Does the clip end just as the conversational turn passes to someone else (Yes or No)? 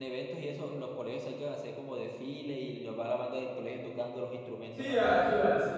Yes